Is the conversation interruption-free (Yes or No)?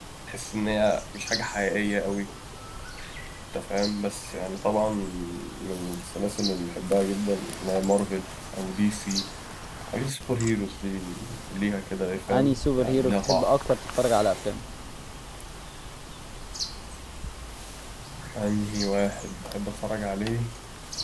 No